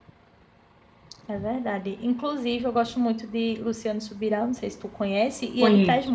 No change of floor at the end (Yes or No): Yes